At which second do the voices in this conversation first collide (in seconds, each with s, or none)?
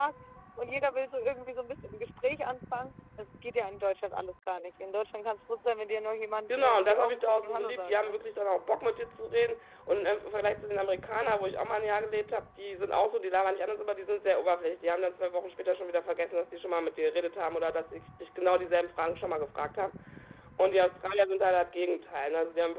6.5 s